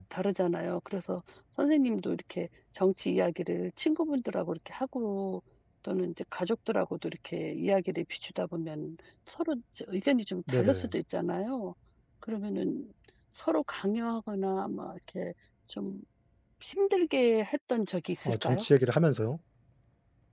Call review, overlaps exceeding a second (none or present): none